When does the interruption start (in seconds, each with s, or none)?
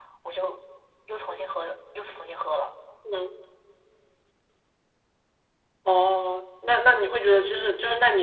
none